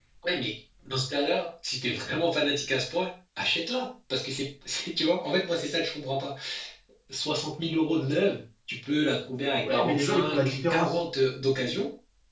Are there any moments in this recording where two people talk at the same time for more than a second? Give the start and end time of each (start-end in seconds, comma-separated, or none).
9.6-11.0